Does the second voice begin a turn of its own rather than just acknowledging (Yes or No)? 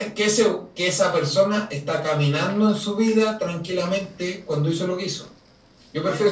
Yes